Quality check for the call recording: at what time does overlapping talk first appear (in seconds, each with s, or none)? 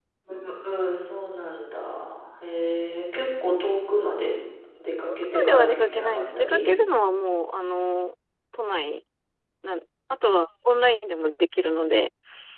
5.3 s